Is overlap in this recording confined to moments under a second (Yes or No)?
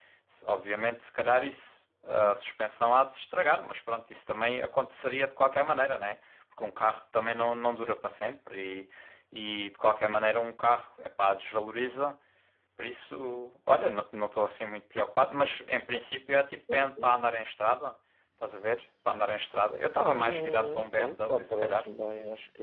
No